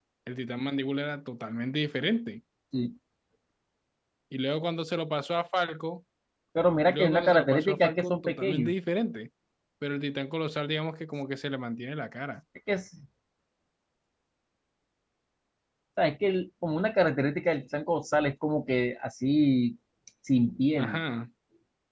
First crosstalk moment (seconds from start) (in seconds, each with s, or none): 6.9 s